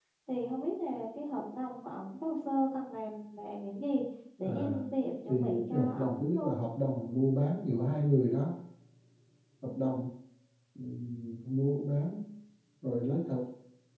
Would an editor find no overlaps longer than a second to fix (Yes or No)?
No